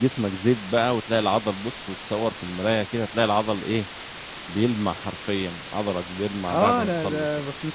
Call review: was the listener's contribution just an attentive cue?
No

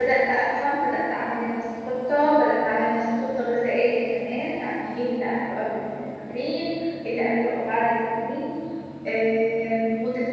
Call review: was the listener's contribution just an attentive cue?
Yes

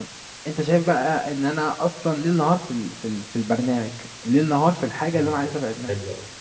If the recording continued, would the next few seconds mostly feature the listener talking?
Yes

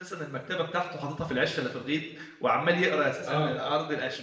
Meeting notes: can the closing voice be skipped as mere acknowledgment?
Yes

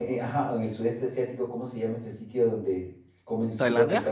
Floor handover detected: No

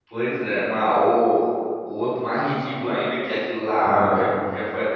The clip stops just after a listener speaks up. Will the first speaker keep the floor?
Yes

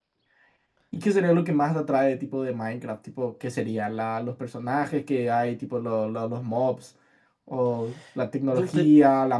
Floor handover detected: No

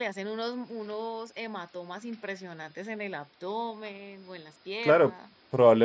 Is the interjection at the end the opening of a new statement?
Yes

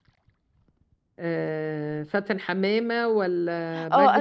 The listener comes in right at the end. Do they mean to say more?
Yes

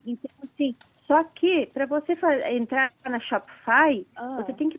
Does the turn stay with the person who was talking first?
Yes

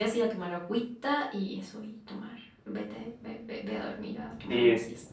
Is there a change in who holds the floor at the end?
Yes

